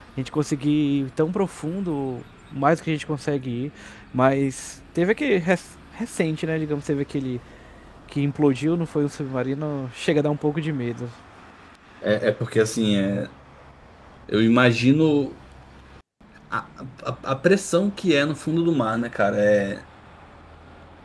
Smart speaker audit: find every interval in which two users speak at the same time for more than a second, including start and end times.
none

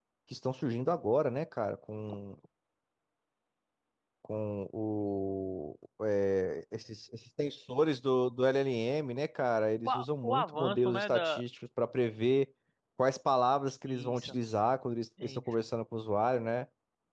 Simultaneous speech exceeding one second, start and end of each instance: 9.8-11.4

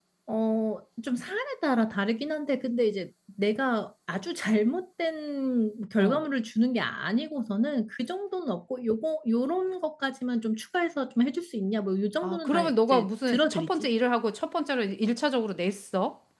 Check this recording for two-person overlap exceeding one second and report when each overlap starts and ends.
12.2-13.9

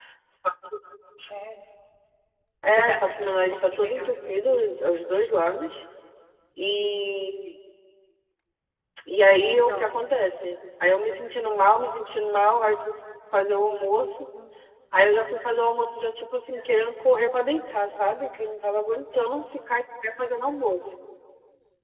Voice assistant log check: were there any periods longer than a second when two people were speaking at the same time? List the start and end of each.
2.8-4.1

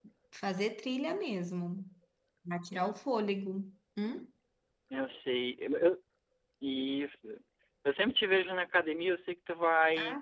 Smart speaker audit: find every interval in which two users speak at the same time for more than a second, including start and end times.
none

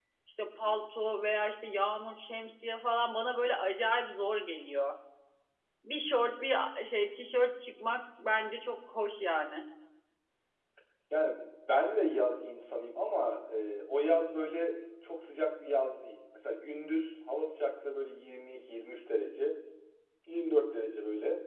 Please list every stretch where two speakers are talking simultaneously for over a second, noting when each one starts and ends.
none

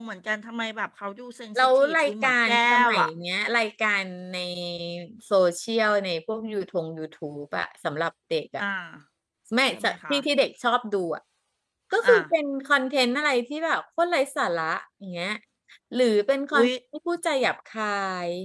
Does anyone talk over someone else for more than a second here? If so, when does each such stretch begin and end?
1.6-3.1

